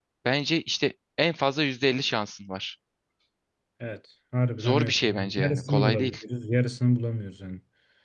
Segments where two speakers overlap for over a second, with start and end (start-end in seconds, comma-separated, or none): 4.6-6.2